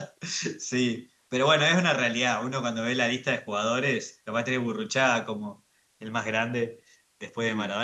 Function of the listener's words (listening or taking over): listening